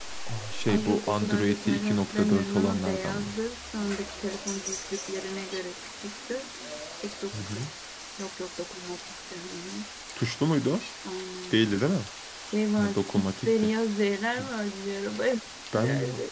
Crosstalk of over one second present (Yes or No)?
Yes